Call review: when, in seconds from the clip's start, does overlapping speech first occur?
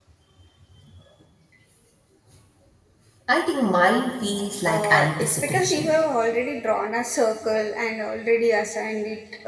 5 s

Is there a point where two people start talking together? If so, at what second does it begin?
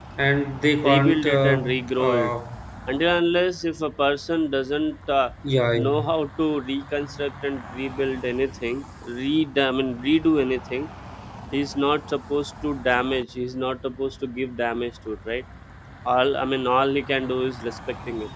1 s

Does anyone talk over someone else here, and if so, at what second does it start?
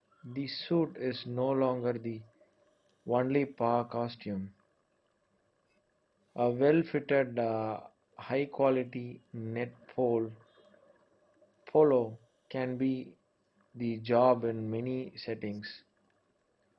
none

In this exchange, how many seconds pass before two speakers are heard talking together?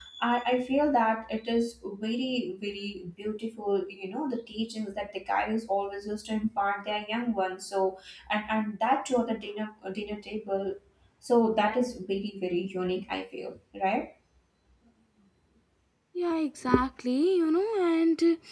none

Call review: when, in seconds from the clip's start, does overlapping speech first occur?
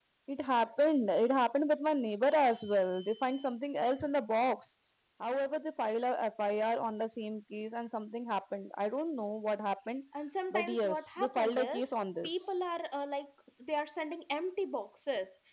11 s

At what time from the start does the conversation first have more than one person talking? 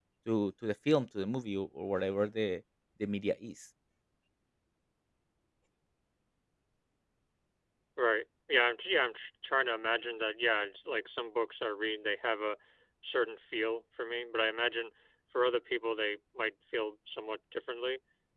none

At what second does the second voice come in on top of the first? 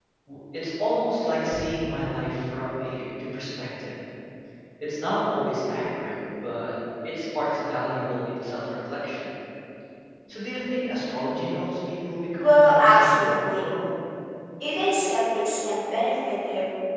12 s

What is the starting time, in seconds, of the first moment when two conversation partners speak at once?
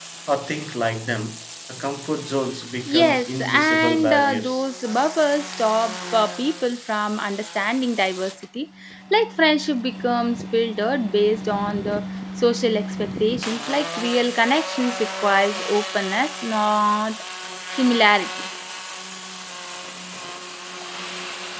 3 s

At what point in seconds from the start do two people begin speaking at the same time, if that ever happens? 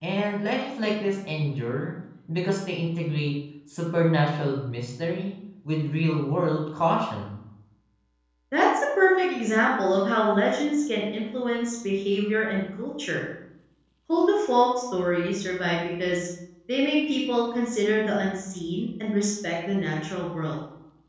none

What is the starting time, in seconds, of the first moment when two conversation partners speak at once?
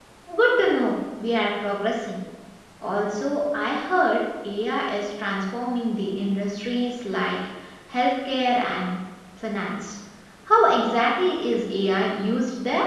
none

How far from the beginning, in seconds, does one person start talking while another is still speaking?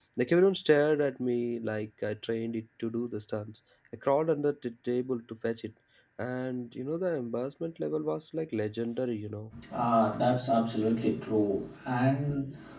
none

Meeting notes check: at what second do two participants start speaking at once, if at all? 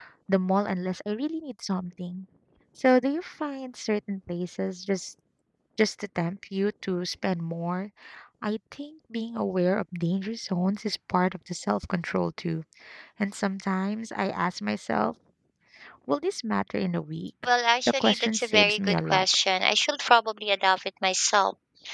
18 s

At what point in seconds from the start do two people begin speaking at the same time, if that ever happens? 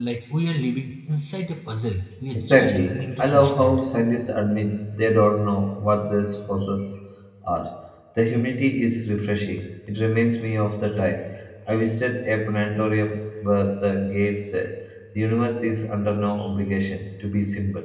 2 s

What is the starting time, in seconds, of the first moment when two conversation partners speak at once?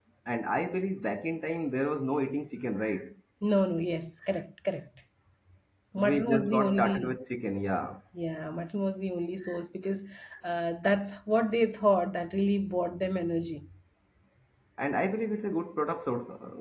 6 s

